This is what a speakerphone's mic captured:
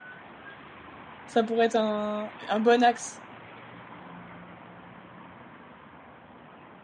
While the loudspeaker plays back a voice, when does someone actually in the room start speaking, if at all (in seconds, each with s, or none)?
1.3 s